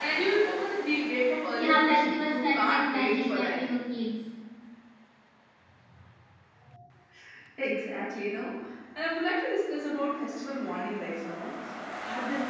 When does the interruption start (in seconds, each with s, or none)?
1.5 s